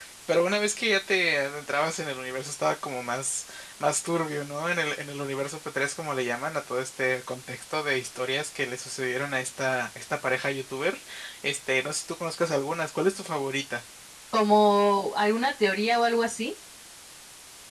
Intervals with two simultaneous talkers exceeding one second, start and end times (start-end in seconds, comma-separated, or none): none